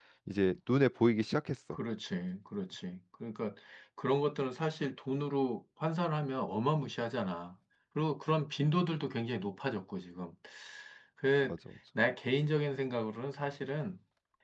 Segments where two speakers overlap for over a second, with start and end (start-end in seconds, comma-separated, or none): none